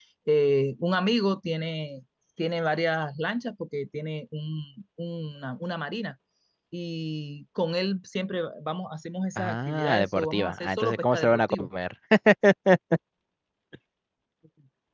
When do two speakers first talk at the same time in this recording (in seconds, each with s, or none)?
9.4 s